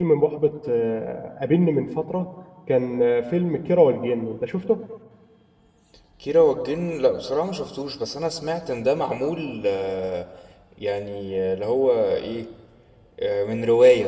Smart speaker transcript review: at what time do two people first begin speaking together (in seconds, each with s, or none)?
none